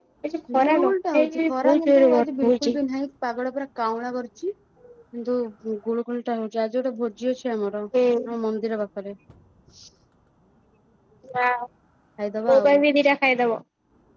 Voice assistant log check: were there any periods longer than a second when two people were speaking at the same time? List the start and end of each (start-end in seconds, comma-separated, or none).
0.5-2.7